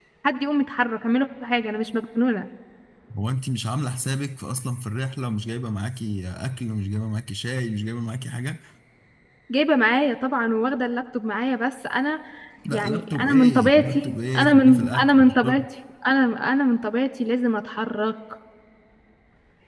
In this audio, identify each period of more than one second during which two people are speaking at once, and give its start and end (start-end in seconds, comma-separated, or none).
12.7-15.6